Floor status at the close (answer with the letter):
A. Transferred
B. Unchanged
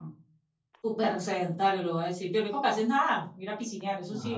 A